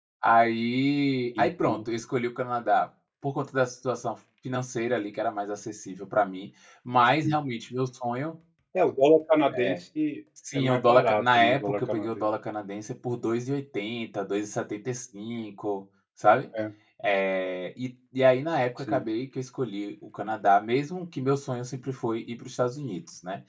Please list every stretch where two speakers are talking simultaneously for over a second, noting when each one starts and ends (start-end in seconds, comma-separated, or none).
10.5-12.3